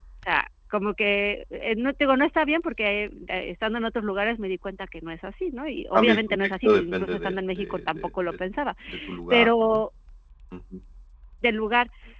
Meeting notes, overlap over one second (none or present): present